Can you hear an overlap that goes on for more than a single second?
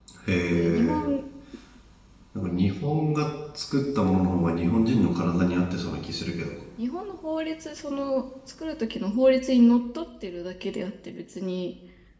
No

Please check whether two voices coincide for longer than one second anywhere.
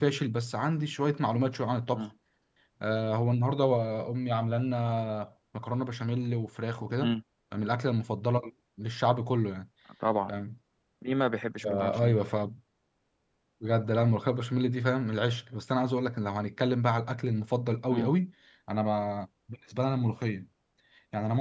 No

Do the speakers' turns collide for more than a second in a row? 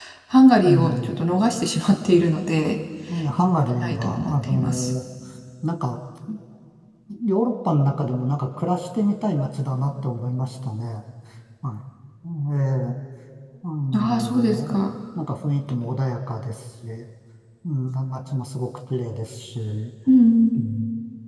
Yes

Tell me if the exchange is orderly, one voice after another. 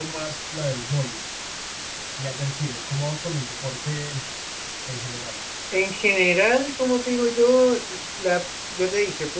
Yes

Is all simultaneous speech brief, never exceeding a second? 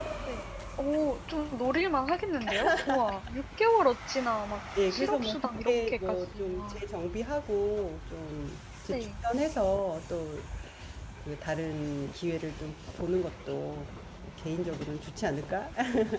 No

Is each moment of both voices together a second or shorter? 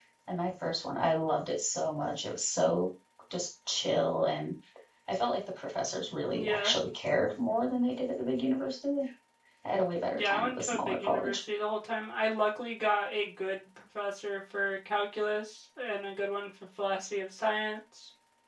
No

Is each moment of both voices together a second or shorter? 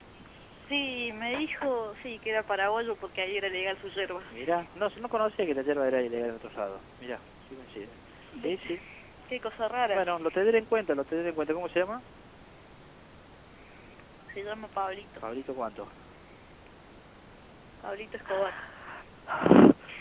Yes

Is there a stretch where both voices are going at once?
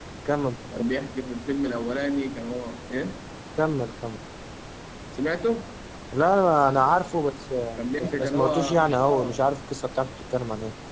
Yes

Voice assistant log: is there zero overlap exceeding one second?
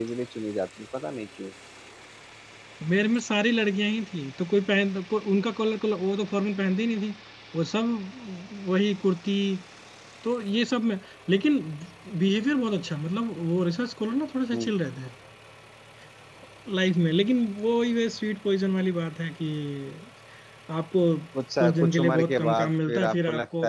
No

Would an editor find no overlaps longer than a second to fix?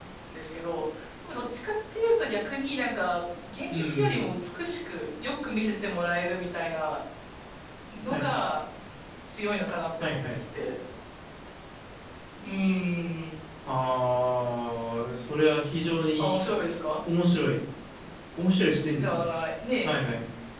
Yes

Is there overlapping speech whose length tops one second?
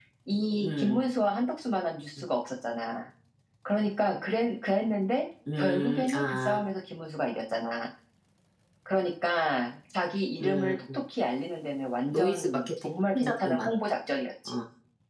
Yes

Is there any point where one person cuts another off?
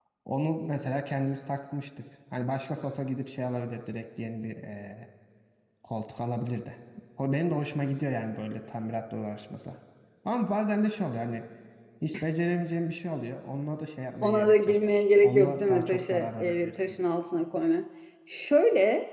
Yes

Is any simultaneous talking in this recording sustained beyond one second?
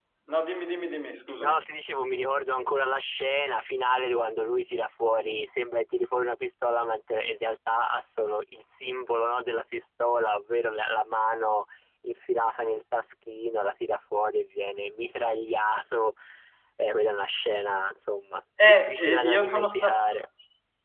Yes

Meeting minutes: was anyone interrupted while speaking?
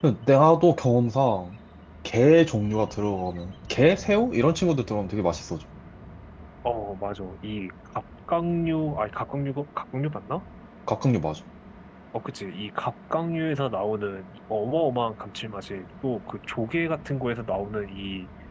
No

